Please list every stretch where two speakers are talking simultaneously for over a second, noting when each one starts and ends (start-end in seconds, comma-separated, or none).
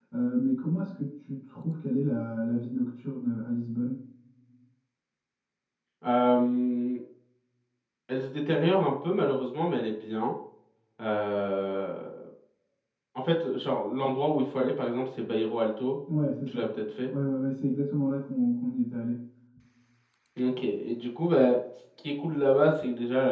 none